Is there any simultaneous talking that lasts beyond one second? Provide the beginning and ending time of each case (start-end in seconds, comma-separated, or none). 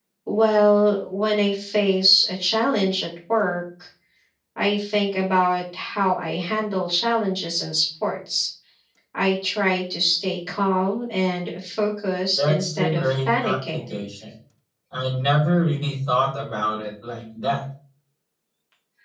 12.4-13.9